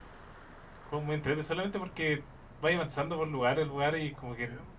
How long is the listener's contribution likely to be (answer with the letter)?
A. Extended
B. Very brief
B